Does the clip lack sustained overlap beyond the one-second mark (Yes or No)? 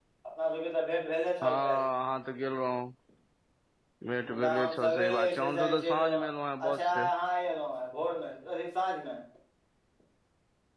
No